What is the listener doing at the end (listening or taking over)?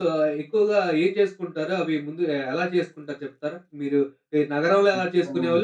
listening